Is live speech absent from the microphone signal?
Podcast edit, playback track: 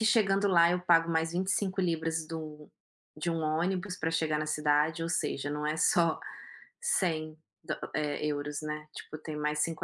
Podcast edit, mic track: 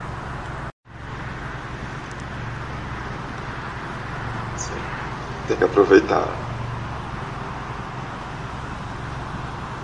No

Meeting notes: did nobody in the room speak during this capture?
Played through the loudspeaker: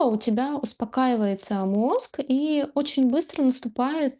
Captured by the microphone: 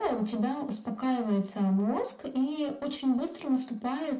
Yes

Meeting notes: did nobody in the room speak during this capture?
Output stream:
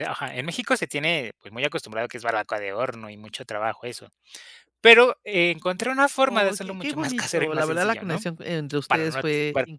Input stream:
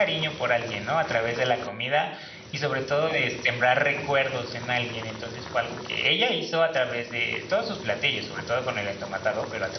No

